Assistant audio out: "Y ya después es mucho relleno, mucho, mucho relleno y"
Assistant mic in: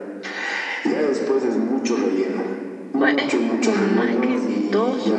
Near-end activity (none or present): present